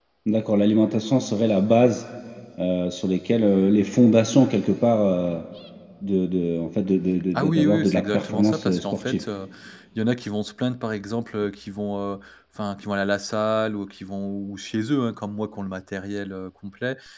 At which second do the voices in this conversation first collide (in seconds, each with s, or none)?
7.3 s